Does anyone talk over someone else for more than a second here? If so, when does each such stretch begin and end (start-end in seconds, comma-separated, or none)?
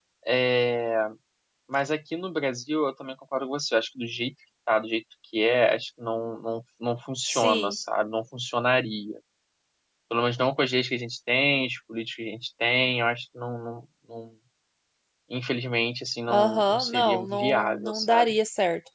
16.3-18.3